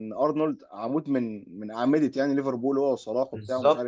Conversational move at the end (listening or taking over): listening